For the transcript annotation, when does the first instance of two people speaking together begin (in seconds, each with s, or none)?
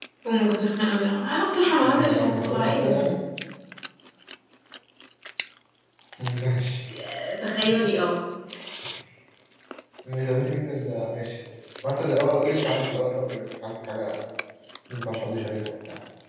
1.8 s